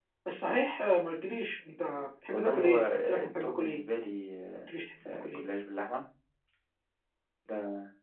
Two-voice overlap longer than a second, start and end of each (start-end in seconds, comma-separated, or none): 2.3-3.8